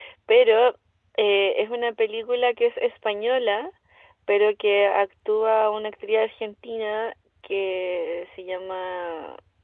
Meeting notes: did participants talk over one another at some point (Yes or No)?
No